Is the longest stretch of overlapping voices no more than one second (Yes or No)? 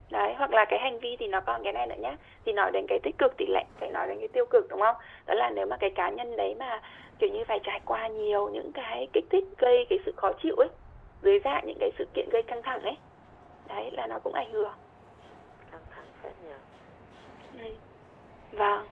Yes